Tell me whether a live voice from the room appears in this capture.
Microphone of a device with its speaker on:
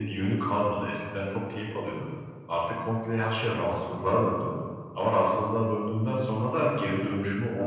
No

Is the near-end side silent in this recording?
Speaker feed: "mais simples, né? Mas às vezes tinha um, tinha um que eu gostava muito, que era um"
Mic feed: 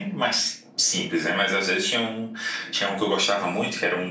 Yes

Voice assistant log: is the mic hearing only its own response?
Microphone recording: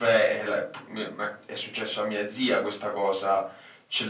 Yes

